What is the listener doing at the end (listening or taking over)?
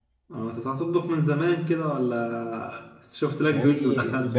taking over